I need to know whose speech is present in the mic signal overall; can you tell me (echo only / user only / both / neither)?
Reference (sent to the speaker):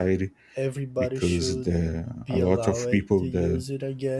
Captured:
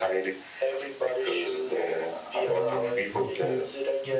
both